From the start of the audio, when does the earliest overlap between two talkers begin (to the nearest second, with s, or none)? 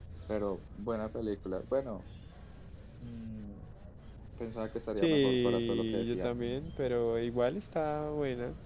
5 s